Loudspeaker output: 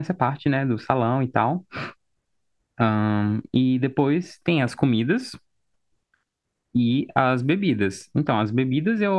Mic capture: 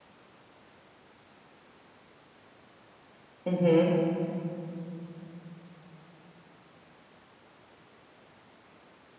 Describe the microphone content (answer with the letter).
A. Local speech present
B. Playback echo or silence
A